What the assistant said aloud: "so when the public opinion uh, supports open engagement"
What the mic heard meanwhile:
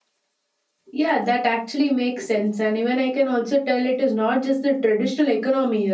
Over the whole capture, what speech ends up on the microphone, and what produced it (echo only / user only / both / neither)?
user only